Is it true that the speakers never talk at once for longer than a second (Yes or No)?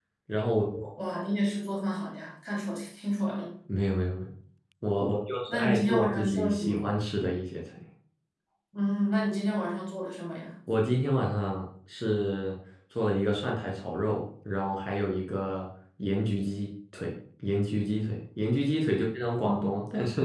No